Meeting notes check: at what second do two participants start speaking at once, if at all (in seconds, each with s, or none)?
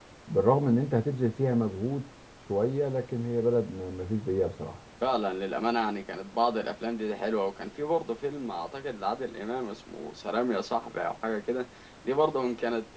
none